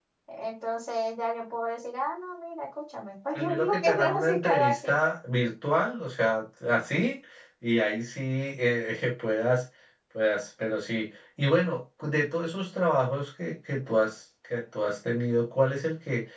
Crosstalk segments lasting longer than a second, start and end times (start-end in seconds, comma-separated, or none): 3.3-5.0